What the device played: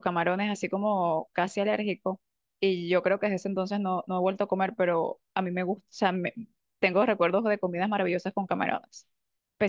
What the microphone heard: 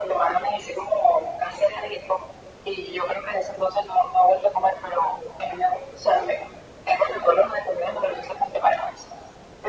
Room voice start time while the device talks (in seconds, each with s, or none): none